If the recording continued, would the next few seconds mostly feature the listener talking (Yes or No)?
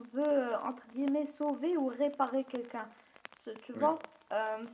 No